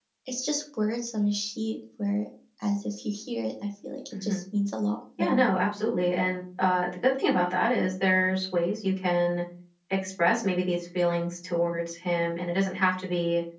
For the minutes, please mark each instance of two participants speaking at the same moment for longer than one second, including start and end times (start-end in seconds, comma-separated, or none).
none